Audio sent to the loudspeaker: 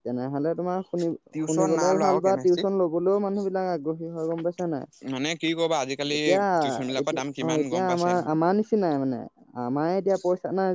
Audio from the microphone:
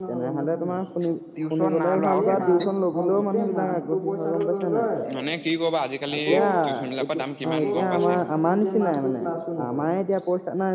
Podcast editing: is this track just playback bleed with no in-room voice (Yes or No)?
No